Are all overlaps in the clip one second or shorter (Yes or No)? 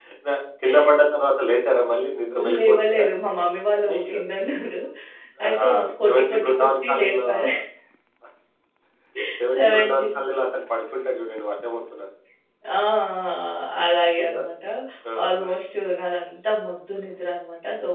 No